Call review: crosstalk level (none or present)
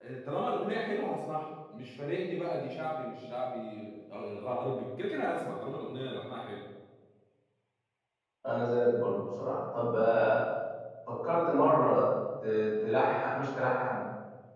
none